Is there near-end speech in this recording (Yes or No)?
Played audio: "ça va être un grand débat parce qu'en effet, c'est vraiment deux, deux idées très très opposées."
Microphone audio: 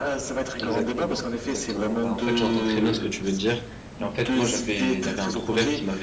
Yes